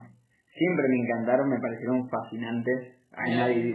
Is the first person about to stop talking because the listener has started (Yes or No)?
No